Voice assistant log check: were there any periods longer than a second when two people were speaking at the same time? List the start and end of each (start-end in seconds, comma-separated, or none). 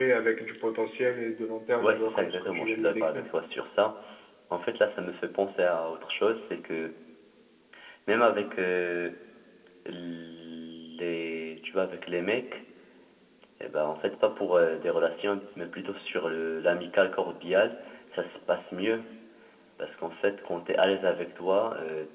1.8-3.2